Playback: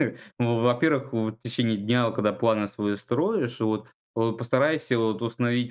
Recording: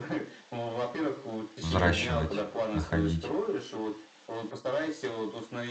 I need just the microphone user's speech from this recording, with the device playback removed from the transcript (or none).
взращивать, находить.